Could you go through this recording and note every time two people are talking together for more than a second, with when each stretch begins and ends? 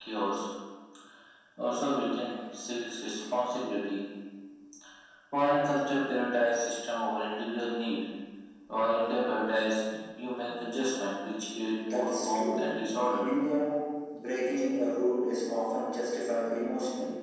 11.9-13.2

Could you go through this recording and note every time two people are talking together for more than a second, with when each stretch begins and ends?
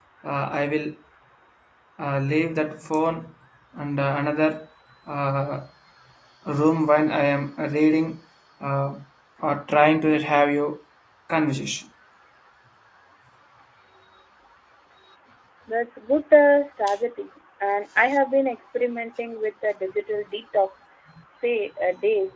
none

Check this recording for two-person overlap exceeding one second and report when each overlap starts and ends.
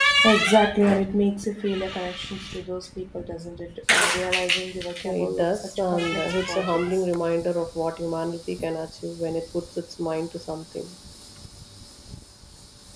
5.0-7.0

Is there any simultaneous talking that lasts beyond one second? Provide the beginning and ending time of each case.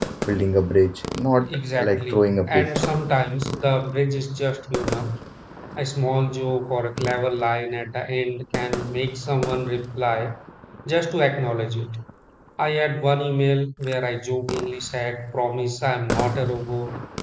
1.5-2.7

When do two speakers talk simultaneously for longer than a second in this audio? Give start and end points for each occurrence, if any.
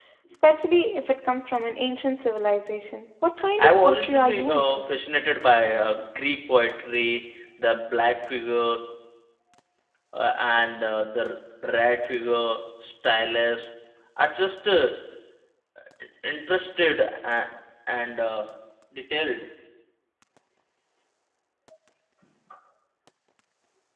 3.6-4.9

